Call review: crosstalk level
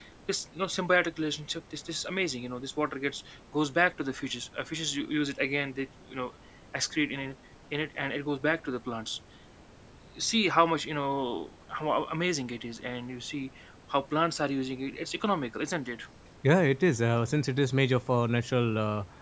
none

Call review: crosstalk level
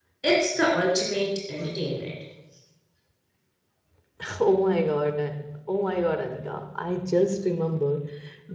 none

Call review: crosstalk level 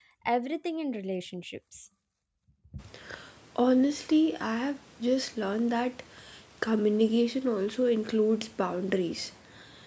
none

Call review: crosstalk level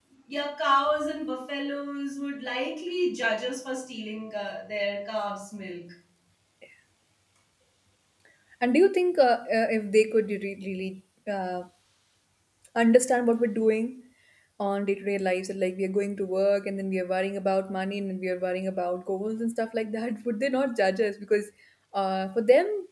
none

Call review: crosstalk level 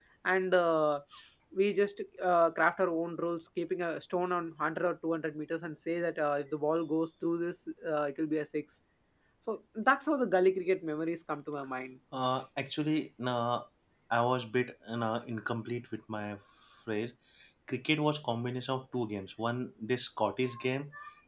none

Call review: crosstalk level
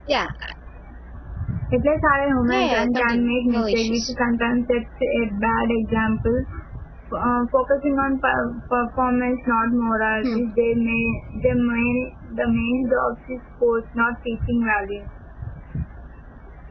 present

